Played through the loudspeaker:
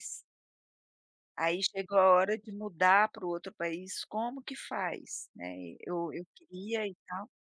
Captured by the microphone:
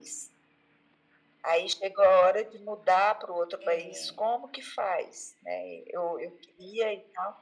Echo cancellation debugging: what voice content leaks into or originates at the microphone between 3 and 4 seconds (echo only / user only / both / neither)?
both